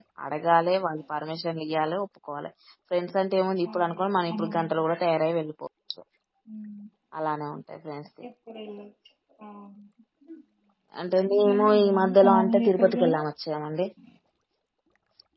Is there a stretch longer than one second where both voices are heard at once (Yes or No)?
Yes